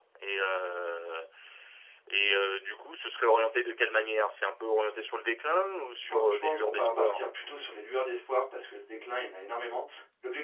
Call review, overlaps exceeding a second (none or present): present